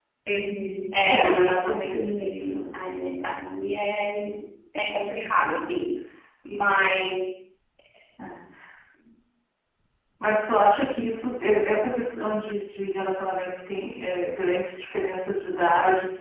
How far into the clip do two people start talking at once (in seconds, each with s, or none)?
1.0 s